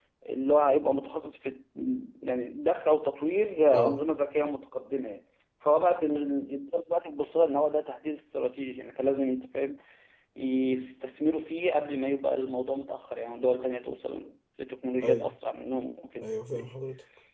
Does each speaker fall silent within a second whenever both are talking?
Yes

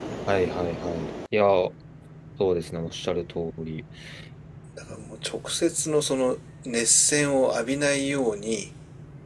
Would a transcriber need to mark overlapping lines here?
No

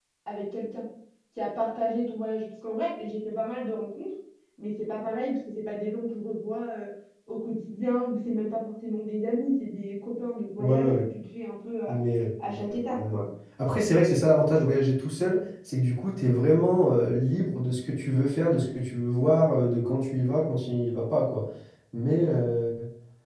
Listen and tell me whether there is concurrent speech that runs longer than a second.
No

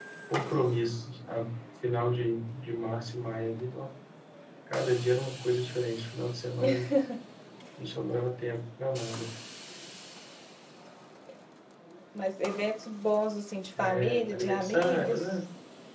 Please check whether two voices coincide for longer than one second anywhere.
Yes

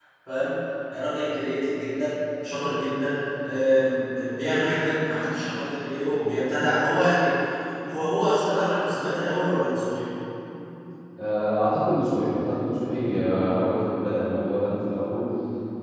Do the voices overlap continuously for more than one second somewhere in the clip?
No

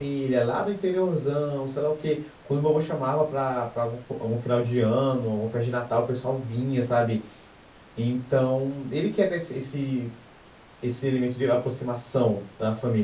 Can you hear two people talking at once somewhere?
No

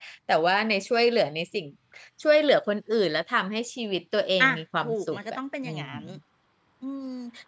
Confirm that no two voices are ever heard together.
No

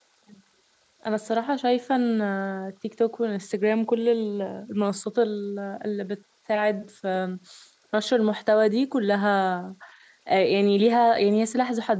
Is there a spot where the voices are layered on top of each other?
No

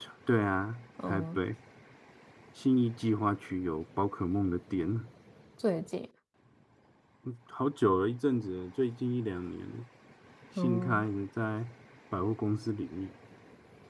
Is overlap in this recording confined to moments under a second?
Yes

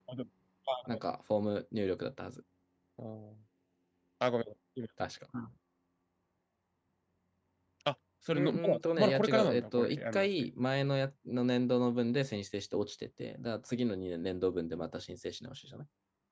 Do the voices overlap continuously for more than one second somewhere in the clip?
Yes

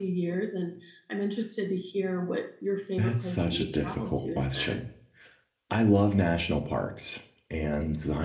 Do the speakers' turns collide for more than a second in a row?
Yes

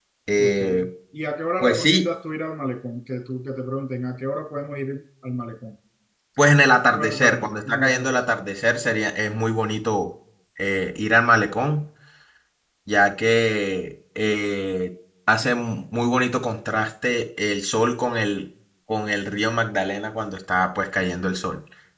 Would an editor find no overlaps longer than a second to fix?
No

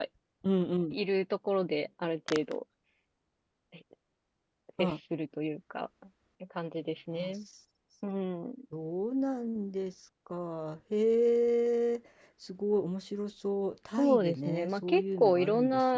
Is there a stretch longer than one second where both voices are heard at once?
Yes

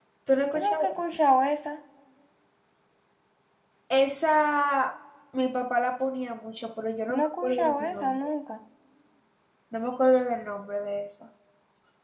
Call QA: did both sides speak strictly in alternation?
No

